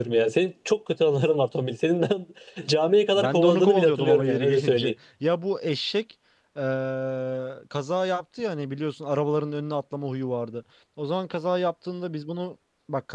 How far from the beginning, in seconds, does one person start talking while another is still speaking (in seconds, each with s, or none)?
3.1 s